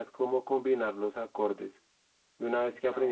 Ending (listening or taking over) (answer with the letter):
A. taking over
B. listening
B